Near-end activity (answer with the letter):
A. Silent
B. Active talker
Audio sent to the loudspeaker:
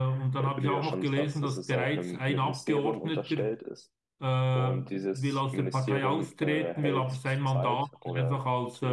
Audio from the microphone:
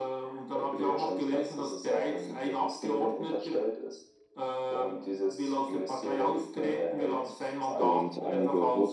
B